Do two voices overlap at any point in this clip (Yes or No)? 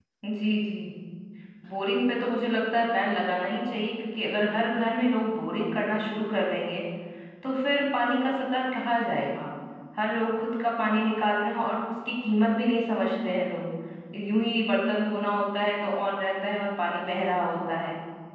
No